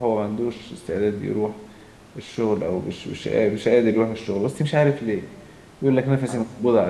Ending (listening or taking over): listening